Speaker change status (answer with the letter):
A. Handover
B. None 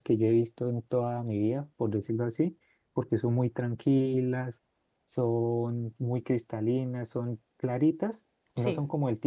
B